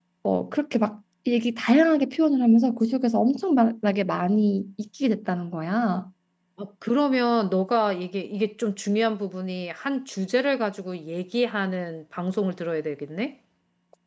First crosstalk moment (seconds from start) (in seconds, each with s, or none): none